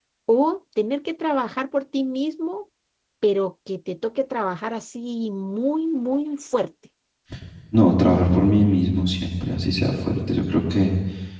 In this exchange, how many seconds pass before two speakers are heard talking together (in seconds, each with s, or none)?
none